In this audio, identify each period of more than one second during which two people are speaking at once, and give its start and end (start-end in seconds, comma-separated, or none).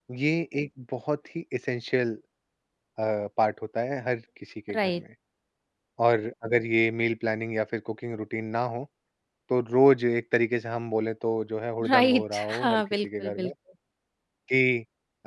11.9-13.5